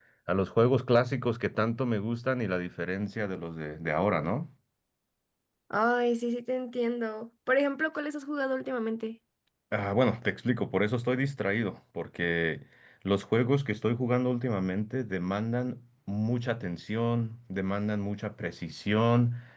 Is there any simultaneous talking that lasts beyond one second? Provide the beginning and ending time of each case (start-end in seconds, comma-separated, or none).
none